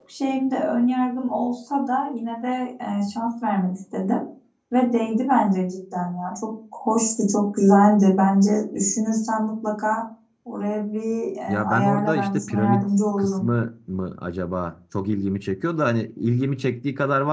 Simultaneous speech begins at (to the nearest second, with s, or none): 11 s